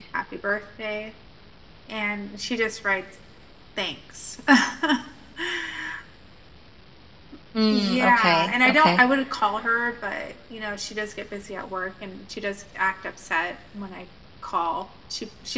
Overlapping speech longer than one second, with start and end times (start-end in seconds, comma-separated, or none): 7.7-9.0